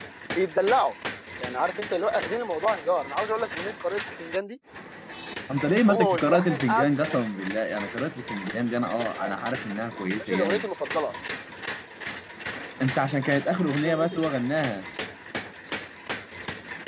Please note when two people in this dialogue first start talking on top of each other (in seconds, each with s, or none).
5.8 s